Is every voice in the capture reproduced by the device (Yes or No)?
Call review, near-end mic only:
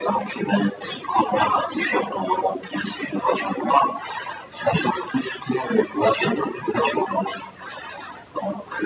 Yes